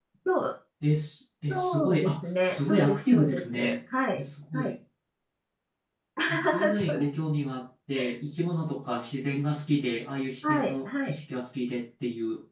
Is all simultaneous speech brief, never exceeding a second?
No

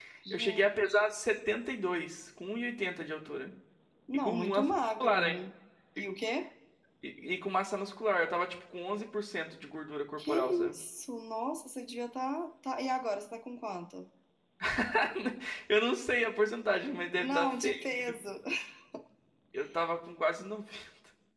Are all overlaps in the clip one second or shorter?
No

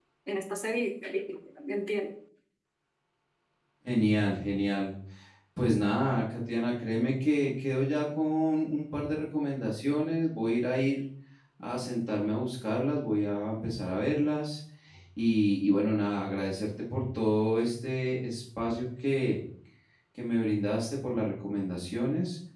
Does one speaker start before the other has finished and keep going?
No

